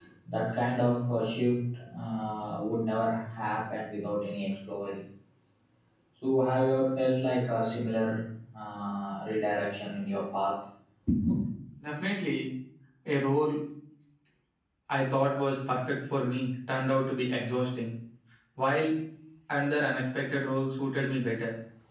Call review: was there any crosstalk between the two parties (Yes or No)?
No